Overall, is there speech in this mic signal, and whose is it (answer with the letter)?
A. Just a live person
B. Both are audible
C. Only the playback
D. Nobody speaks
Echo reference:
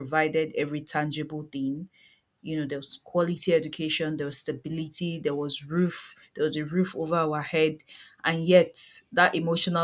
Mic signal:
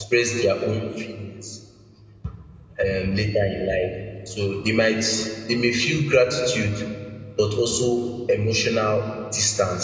A